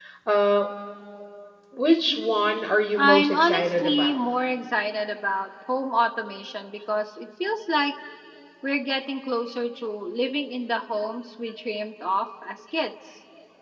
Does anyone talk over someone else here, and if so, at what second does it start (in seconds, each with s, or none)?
3.0 s